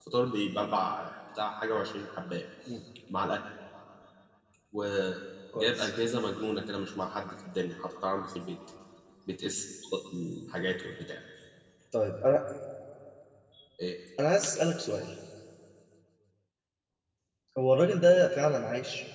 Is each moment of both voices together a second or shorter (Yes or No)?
Yes